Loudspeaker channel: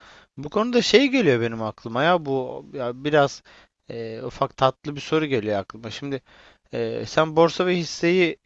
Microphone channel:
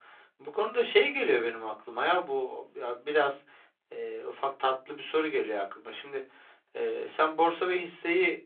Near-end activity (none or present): none